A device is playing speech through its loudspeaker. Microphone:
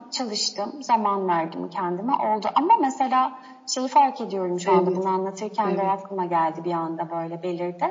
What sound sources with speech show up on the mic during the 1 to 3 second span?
echo only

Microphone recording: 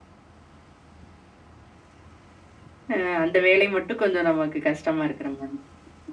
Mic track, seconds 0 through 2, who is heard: neither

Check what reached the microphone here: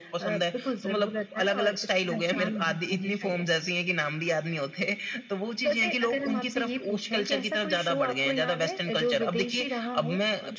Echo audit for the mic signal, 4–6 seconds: echo only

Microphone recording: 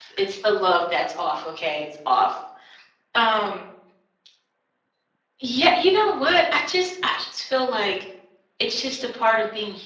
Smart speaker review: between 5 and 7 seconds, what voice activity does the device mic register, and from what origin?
user only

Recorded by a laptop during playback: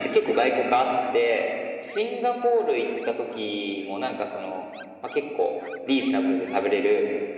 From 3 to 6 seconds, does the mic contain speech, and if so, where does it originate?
echo only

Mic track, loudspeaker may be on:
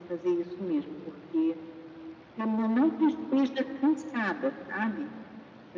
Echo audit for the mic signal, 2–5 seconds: echo only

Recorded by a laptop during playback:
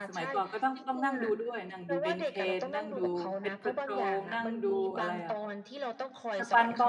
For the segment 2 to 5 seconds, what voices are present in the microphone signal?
both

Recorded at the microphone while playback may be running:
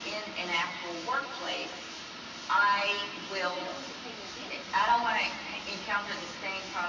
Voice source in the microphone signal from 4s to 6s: both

